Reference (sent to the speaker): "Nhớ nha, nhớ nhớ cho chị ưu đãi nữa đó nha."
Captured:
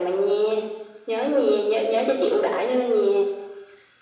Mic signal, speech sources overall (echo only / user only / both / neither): echo only